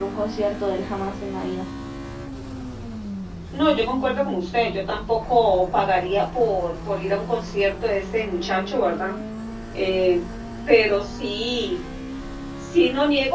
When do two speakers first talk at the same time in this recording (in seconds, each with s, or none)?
none